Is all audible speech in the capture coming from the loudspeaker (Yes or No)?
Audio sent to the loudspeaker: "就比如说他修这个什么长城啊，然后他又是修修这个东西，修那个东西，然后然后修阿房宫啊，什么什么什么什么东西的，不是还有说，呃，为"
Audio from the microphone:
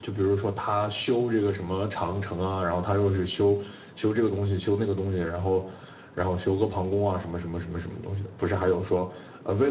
Yes